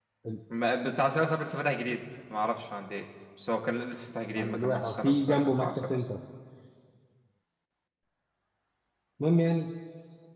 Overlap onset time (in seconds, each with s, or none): 4.4 s